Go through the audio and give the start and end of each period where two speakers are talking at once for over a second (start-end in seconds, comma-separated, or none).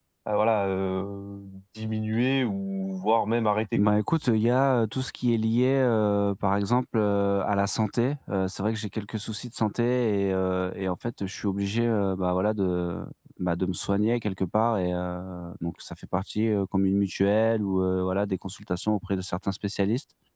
none